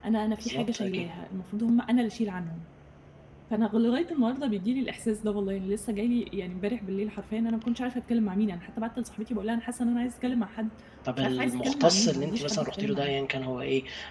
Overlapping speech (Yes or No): Yes